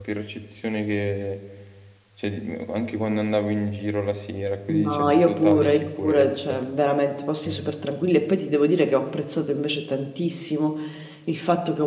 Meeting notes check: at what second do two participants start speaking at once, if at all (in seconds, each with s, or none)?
4.7 s